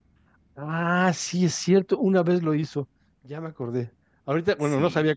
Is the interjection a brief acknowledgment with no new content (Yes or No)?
Yes